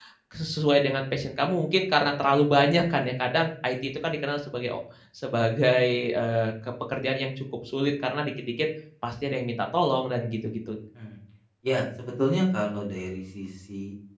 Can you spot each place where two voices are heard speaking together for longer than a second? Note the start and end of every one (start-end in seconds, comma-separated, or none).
none